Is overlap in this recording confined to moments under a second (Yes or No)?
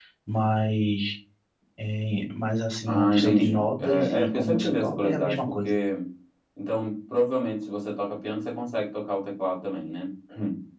No